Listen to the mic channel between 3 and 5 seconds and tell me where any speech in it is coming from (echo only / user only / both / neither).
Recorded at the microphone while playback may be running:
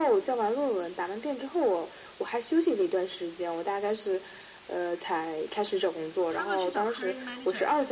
echo only